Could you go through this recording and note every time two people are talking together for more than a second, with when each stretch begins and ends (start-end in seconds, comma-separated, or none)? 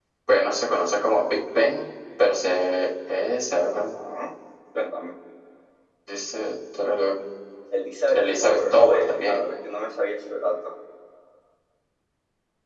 8.1-9.4